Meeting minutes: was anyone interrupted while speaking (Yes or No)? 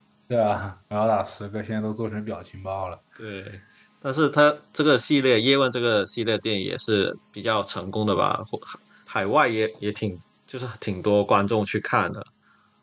No